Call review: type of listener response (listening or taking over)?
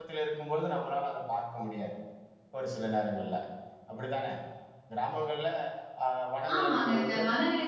taking over